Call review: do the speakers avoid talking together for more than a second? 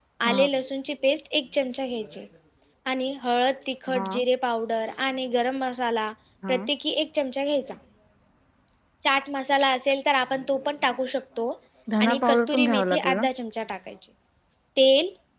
No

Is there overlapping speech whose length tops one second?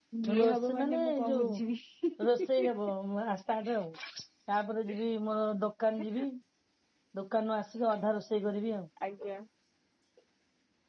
Yes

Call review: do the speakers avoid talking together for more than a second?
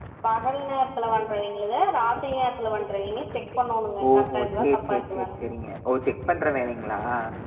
No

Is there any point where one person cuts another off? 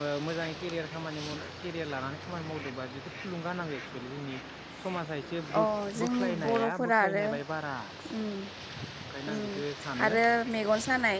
Yes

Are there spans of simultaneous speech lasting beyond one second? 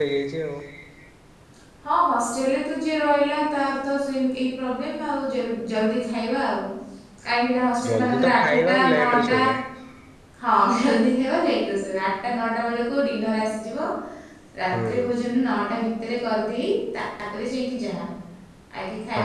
Yes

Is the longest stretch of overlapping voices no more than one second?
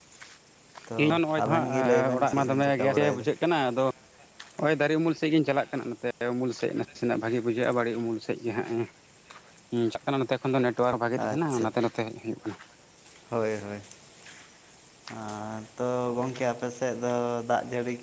No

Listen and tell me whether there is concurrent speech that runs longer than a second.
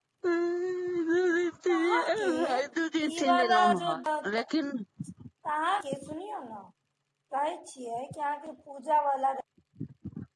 Yes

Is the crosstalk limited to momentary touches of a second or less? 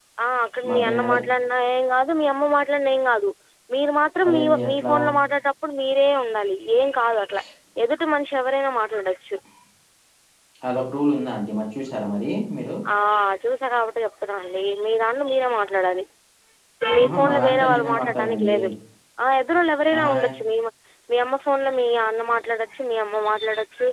No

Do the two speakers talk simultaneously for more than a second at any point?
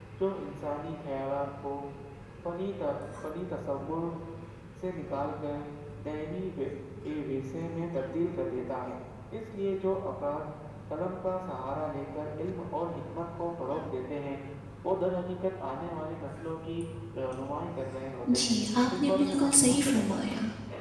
Yes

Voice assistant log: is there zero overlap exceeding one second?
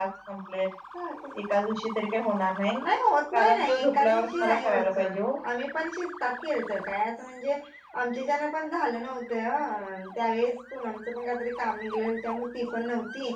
No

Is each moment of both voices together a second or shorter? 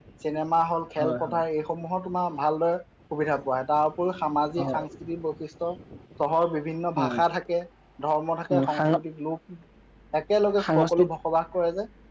Yes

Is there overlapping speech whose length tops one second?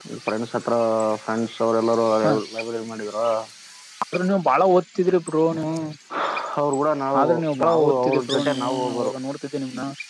Yes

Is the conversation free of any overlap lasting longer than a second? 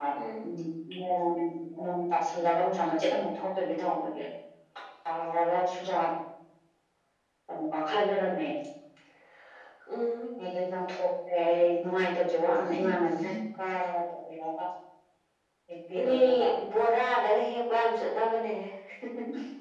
Yes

